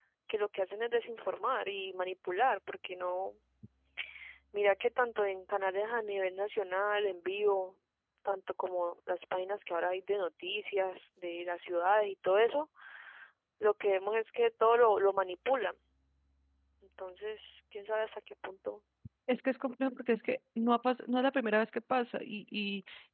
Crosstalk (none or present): none